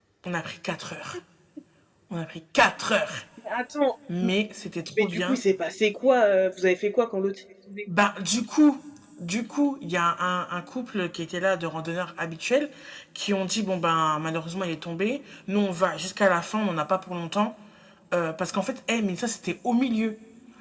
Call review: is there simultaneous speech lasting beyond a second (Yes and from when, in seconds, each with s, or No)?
No